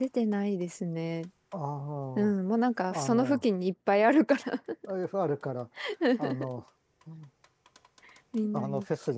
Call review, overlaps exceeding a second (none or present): none